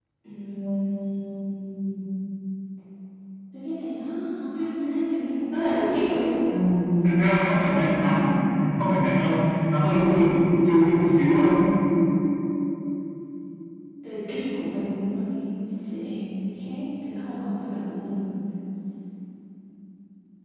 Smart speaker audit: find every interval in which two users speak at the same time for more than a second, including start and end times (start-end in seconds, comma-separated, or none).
none